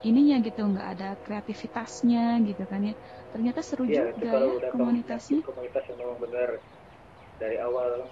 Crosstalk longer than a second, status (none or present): present